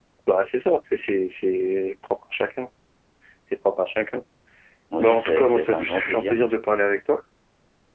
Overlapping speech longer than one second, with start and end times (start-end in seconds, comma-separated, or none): 5.0-6.4